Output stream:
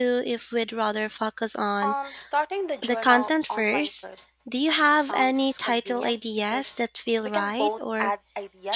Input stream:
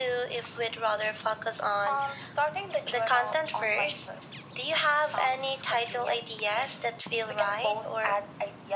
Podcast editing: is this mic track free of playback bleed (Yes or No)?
No